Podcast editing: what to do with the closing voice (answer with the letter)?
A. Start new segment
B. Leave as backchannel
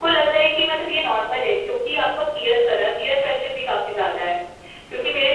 B